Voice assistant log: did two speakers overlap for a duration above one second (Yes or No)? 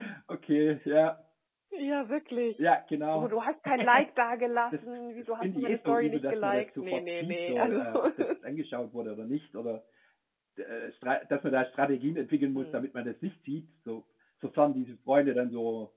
Yes